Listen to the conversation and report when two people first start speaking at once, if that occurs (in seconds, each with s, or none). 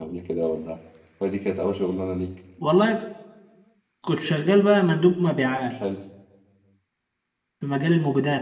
none